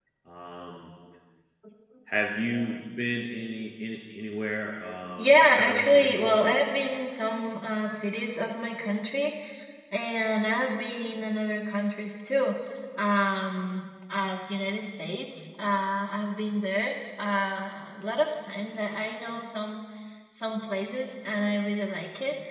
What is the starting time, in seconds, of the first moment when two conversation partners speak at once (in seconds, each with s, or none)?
5.2 s